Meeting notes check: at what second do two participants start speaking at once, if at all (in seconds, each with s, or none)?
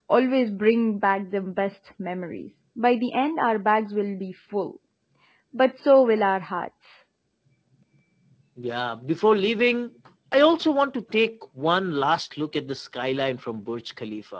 none